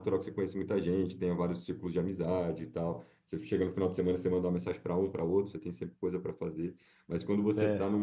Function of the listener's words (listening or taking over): listening